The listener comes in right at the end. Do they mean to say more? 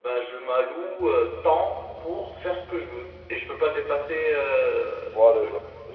Yes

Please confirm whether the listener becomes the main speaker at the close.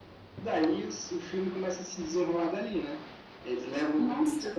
No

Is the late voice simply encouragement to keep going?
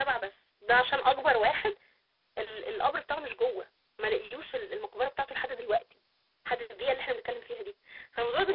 Yes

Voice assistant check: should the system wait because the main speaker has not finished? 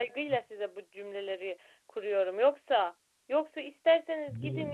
Yes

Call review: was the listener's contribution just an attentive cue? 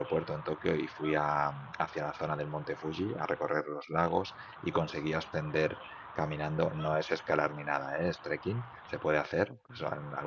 Yes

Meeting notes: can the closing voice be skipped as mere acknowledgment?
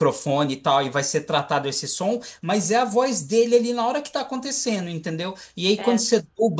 Yes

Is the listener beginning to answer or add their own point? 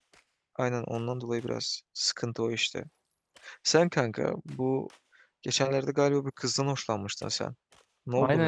Yes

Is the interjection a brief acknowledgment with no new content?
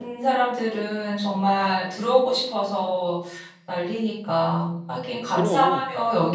Yes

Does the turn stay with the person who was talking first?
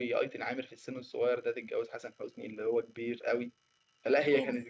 Yes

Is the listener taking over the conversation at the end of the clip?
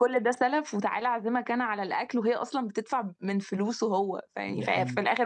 No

